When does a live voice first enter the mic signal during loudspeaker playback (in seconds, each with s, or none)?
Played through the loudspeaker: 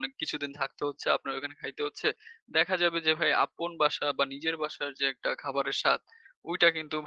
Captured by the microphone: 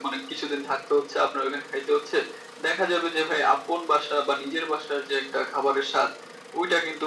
none